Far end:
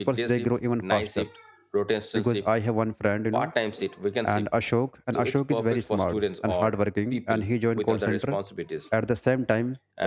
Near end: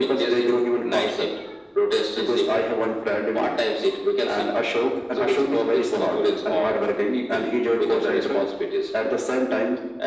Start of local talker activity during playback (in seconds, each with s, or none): none